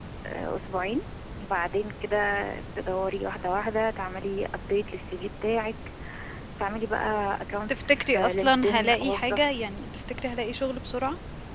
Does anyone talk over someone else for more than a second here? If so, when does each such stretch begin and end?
7.7-9.5

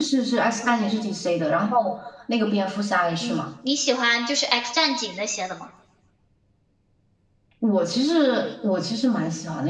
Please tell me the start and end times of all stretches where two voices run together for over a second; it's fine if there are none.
none

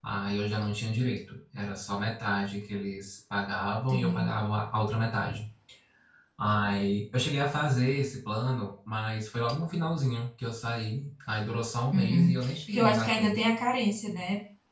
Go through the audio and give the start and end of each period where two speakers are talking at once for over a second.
11.9-13.4

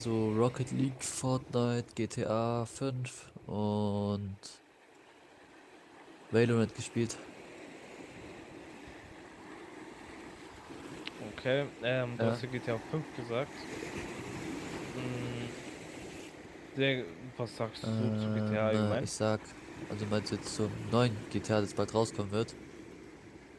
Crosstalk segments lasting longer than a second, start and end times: 17.8-19.1

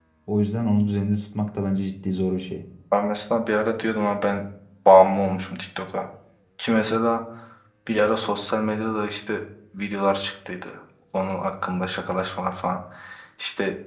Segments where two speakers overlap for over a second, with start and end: none

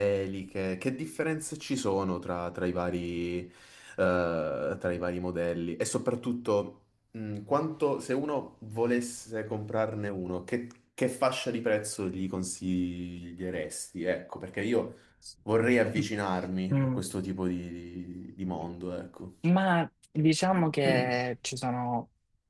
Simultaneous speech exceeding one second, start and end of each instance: none

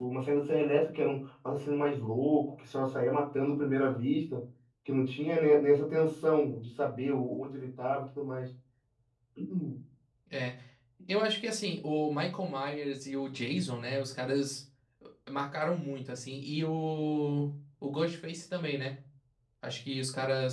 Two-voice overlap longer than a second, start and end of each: none

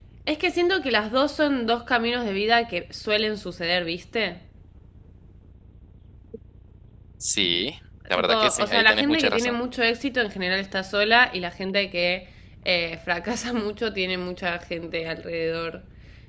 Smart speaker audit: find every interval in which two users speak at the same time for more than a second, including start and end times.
8.2-9.5

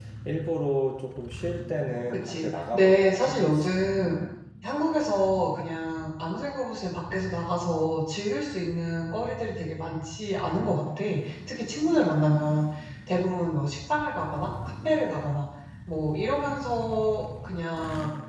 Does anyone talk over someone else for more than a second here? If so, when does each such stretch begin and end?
2.1-3.7

